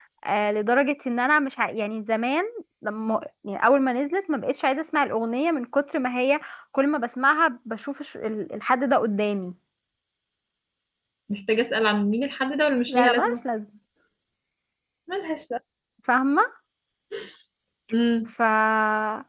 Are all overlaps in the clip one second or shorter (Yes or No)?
Yes